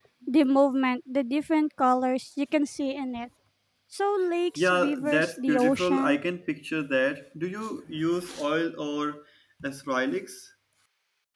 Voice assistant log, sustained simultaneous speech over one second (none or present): present